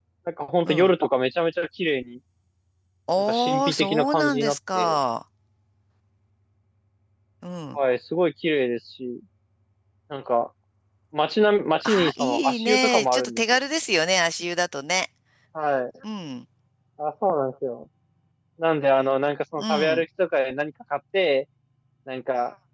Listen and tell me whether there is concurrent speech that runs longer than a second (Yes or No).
Yes